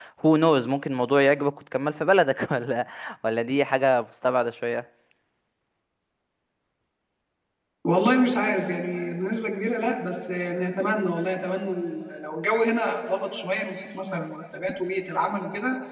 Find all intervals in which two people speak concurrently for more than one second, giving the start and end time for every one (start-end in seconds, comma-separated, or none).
none